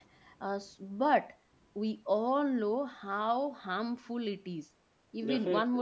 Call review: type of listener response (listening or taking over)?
listening